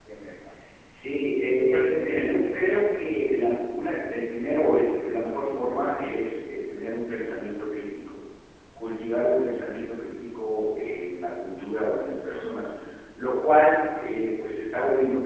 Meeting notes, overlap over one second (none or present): present